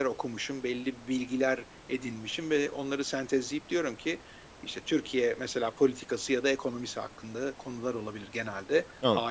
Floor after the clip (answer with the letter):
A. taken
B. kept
B